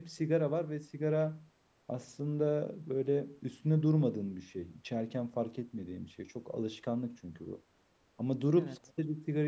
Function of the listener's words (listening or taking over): listening